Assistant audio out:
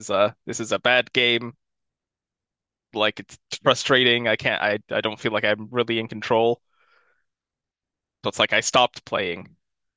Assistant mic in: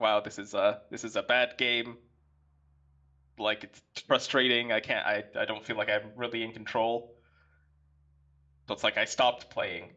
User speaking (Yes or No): No